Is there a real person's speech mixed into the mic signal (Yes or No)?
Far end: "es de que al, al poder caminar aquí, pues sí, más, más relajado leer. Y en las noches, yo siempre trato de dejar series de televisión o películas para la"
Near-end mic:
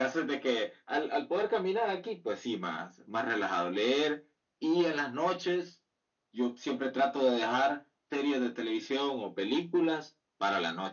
No